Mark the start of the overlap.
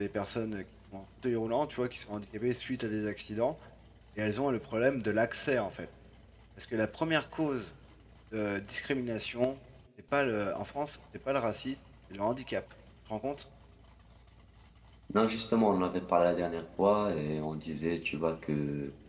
none

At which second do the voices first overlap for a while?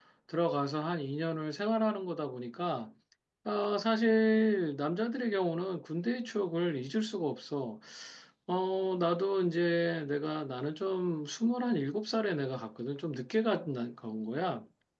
none

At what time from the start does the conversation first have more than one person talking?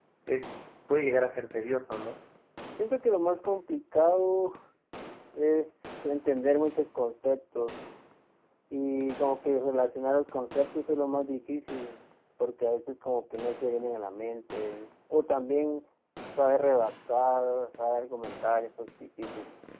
none

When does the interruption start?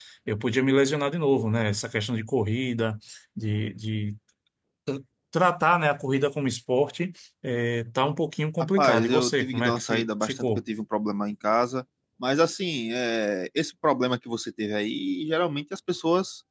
9 s

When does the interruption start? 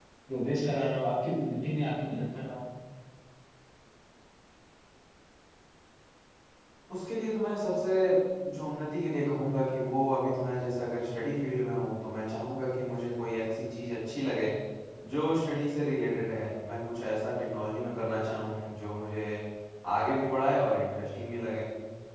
none

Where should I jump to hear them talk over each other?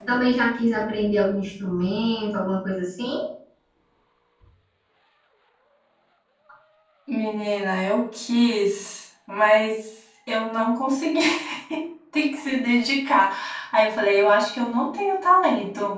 none

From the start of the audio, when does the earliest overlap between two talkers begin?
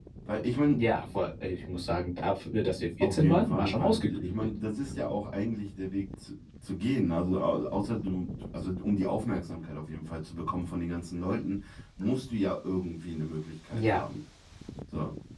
3 s

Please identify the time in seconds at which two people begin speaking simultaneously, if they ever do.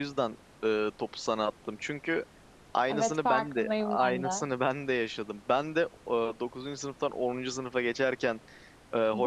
3 s

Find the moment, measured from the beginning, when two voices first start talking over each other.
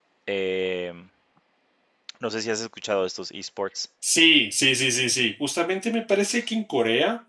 none

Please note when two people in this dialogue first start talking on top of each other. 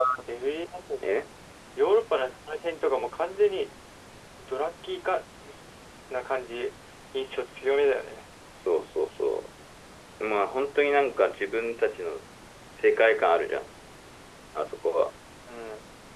none

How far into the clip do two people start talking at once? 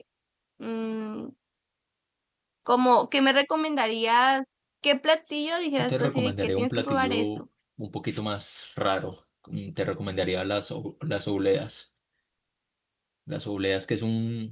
6 s

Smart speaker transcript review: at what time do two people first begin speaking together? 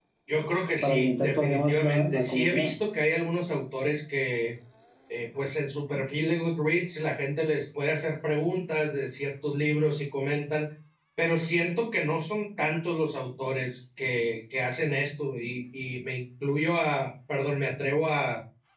1 s

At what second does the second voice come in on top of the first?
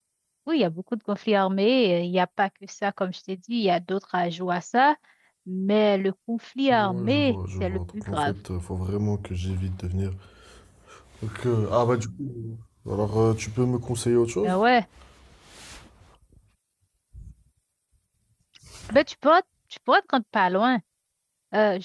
7 s

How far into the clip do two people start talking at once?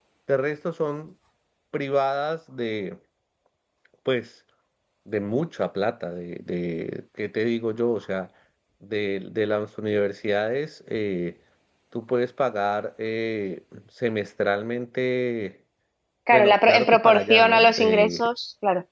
16 s

